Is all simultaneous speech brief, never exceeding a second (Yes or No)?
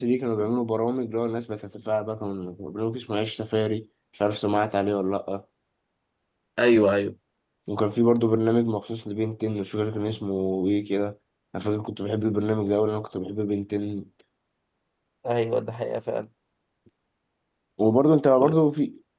Yes